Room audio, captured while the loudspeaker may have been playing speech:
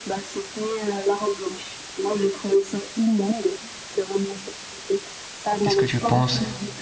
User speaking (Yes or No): Yes